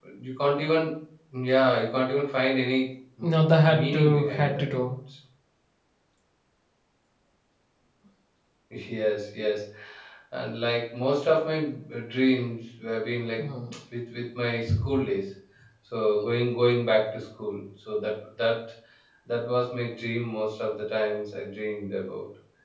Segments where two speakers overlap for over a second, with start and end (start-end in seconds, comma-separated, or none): 3.2-4.6